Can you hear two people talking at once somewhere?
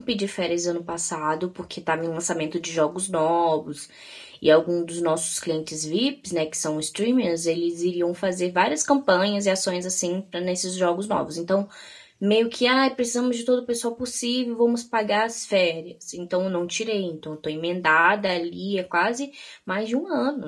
No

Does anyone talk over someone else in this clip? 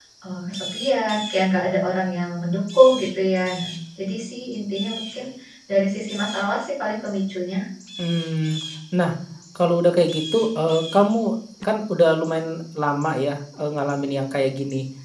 No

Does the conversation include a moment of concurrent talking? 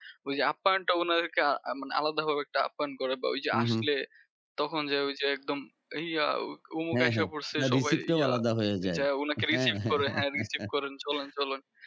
Yes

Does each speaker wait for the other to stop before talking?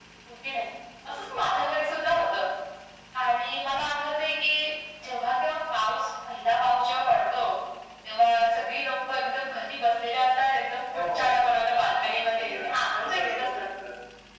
No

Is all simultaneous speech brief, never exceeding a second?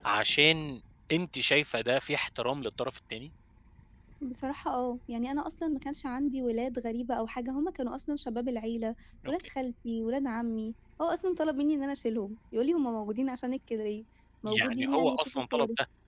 No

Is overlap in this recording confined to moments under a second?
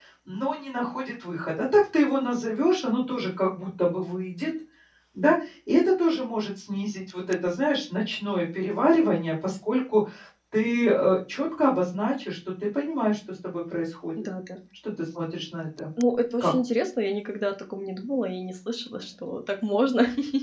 Yes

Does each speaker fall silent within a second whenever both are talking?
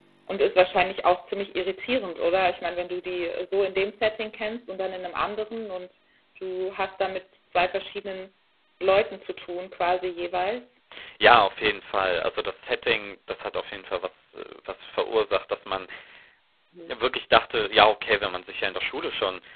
Yes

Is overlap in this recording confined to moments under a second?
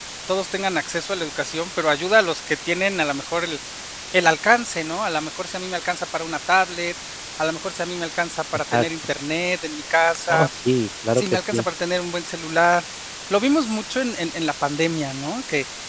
Yes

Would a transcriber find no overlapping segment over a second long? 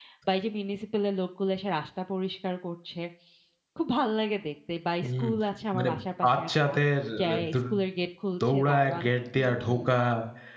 No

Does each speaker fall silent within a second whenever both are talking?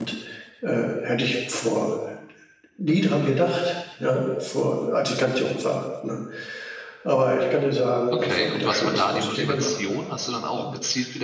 No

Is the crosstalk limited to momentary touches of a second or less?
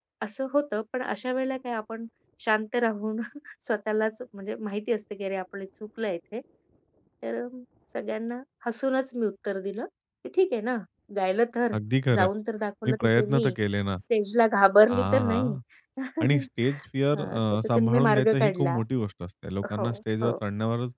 No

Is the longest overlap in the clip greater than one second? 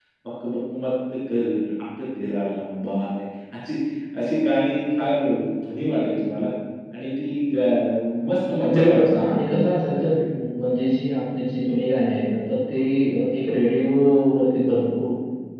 Yes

